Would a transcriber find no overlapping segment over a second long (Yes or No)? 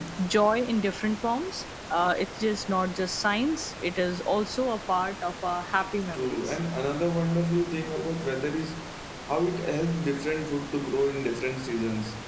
Yes